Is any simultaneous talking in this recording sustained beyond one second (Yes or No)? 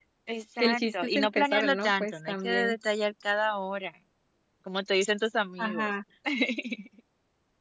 Yes